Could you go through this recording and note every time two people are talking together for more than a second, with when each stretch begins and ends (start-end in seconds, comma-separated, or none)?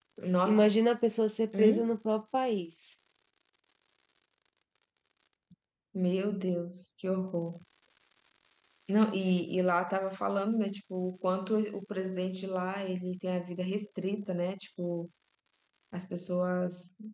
none